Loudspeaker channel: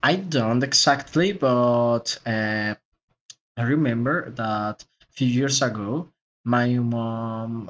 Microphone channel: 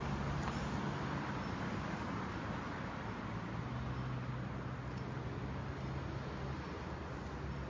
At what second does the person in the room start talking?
none

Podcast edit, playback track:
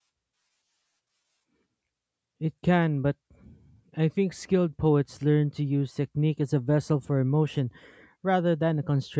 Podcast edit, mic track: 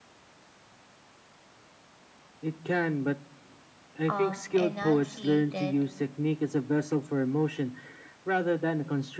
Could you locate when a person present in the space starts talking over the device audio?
4.1 s

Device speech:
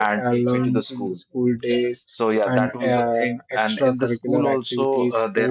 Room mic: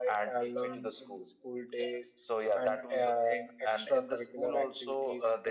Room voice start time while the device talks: none

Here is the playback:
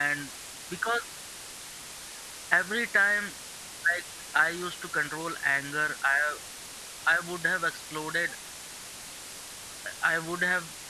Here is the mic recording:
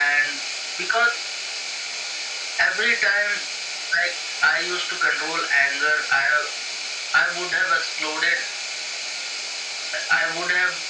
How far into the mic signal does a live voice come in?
none

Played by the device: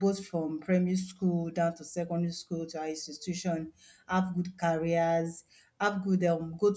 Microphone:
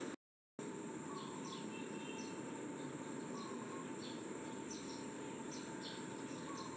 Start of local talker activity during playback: none

